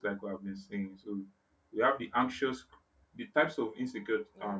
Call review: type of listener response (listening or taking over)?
listening